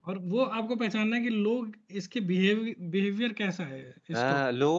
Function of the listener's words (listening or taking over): taking over